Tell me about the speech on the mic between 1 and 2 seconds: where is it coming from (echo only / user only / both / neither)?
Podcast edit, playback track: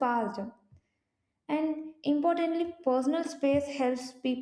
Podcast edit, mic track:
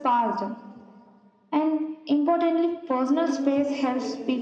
echo only